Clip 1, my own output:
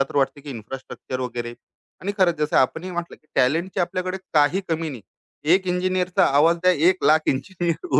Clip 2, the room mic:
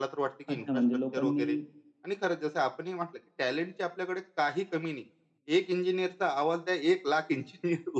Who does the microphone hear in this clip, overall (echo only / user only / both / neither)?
both